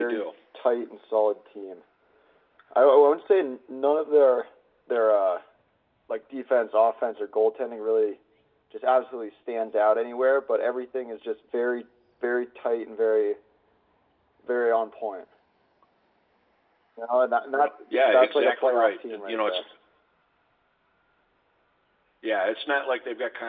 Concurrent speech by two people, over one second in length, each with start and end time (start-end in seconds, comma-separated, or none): 18.1-19.6